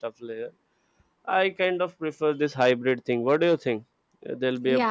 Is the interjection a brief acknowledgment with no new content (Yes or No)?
No